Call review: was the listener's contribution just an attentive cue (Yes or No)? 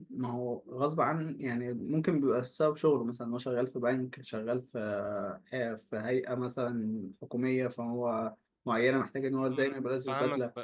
No